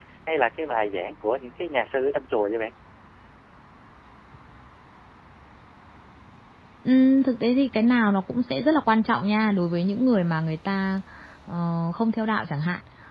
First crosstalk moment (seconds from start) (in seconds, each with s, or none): none